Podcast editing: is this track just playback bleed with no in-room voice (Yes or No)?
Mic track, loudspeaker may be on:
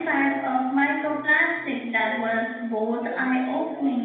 No